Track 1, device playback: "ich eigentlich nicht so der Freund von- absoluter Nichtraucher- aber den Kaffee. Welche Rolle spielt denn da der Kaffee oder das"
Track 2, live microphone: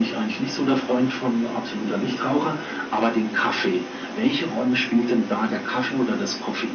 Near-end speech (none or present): none